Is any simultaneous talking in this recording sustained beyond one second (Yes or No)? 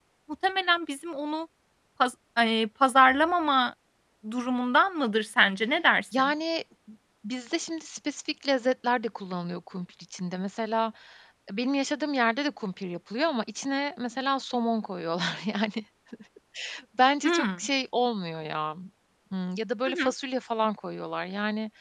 No